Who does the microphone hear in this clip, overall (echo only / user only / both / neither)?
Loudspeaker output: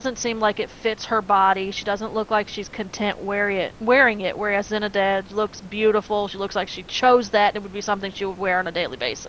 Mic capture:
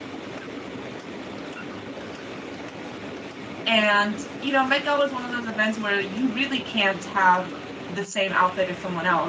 user only